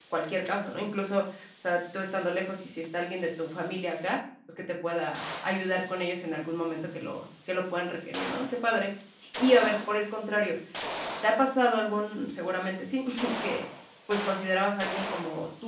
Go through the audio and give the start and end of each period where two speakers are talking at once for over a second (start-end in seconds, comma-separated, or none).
none